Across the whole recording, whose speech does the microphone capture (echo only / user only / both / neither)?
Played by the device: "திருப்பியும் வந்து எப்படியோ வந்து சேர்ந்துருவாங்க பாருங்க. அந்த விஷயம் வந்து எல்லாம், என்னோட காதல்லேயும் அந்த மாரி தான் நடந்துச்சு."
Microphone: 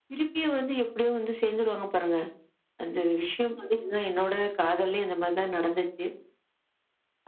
echo only